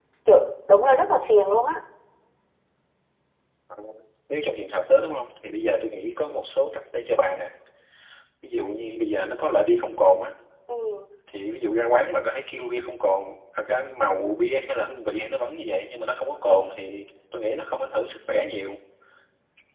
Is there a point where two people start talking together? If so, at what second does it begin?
none

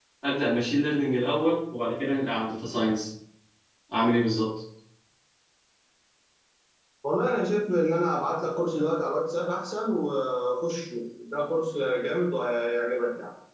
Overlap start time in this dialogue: none

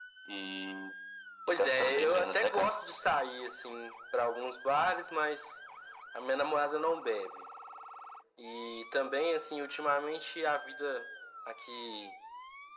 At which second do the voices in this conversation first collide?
1 s

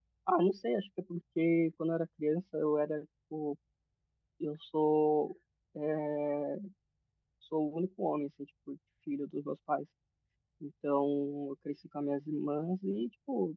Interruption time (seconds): none

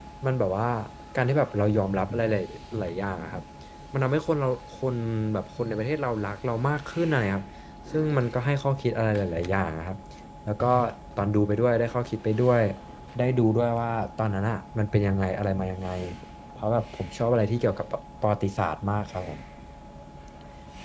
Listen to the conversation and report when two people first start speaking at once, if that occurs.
none

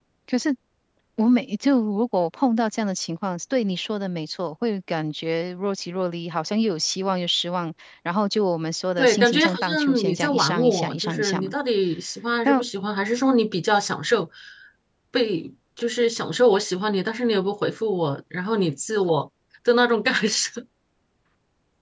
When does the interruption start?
9 s

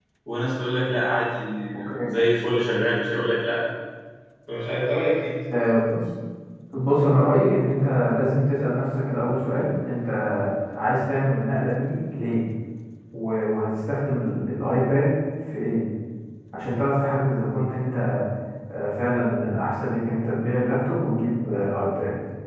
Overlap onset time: none

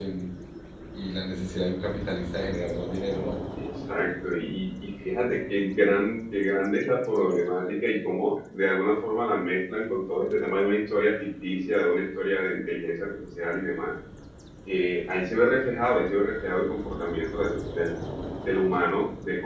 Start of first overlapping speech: none

